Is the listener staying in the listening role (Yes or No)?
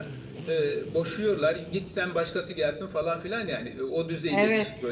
No